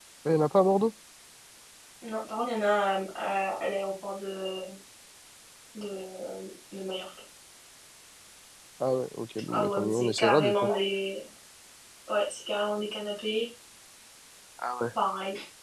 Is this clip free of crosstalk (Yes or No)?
No